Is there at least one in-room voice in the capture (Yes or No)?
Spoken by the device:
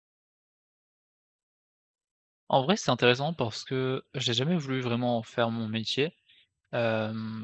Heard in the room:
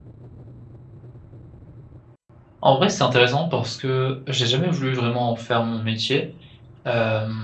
No